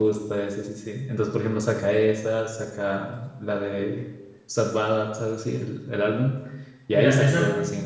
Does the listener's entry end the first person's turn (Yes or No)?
Yes